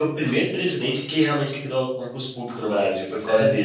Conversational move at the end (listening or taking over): taking over